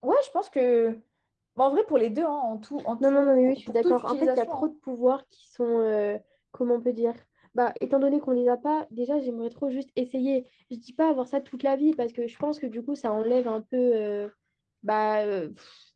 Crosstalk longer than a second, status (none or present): present